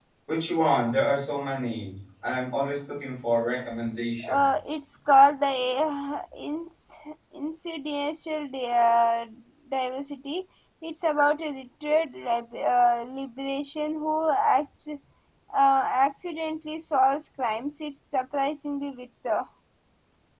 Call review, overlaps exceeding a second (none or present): none